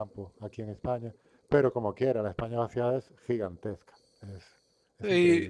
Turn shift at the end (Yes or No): Yes